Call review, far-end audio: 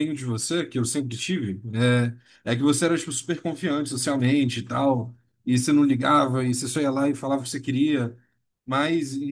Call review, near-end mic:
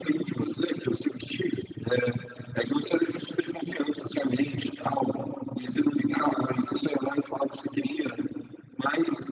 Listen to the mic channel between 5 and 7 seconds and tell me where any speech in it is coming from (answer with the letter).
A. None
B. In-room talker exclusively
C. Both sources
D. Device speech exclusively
D